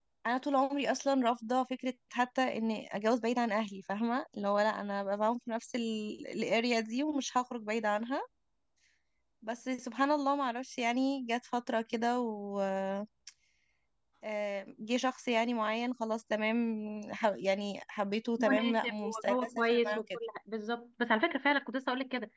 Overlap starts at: 18.4 s

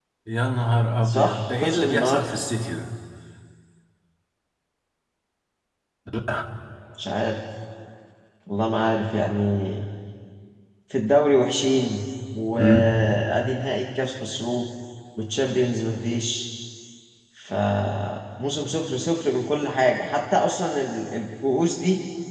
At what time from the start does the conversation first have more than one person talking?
1.0 s

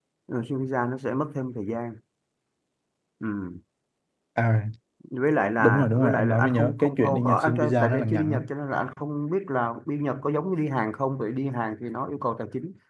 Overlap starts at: 5.6 s

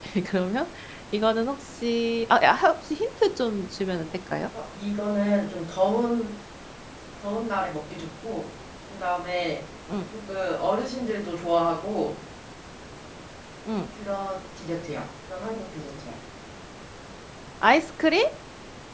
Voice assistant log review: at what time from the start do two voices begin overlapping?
none

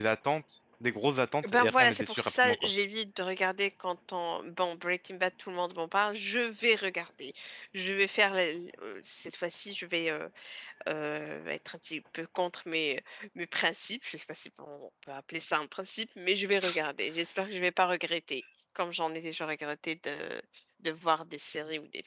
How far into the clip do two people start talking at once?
1.4 s

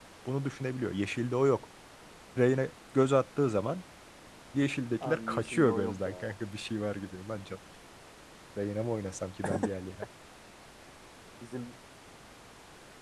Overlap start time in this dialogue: 5.0 s

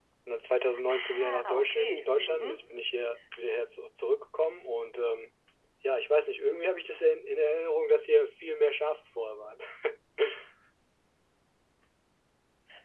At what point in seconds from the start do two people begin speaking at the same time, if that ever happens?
0.9 s

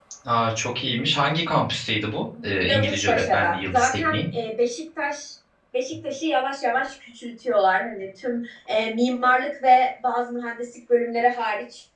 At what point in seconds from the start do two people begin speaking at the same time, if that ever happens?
2.6 s

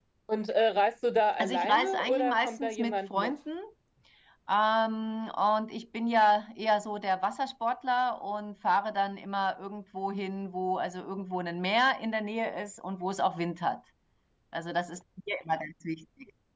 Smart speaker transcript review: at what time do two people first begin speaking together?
1.4 s

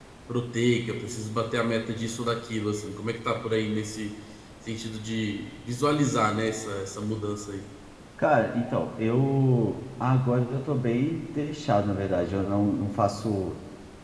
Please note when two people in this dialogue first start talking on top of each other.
none

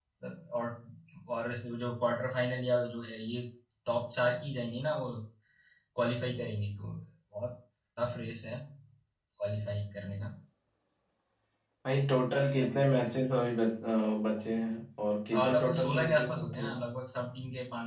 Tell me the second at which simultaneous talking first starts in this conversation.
15.3 s

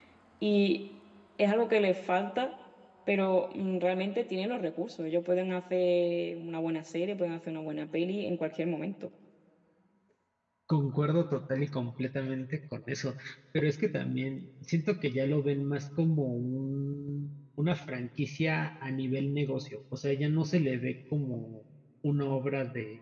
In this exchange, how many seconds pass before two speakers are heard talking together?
none

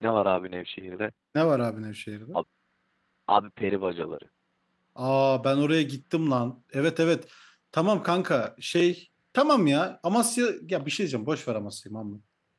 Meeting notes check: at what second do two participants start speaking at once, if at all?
none

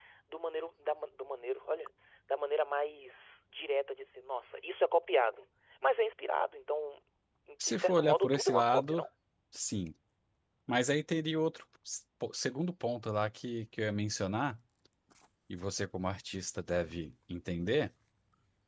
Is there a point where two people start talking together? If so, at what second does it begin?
7.6 s

